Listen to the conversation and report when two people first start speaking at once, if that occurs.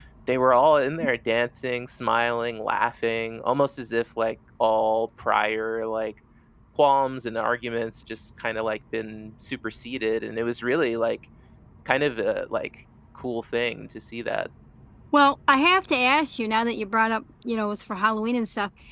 none

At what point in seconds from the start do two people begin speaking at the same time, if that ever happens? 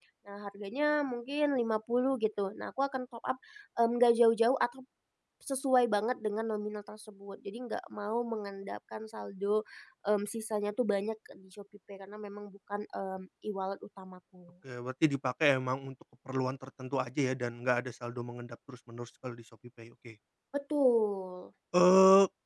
none

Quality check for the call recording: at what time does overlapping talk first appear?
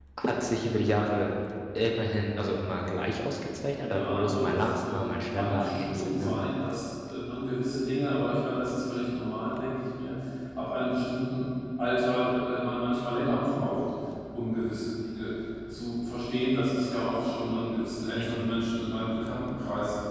3.9 s

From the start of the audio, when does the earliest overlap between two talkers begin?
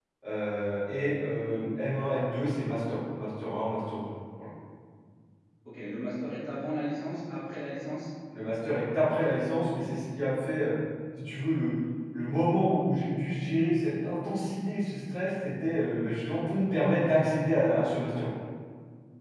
none

